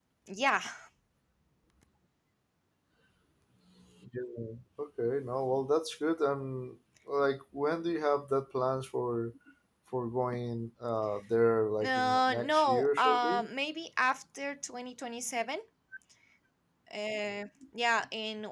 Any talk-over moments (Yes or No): Yes